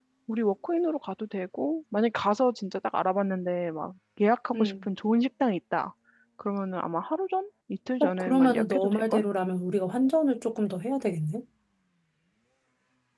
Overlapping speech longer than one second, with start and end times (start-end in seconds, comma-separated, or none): 8.0-9.2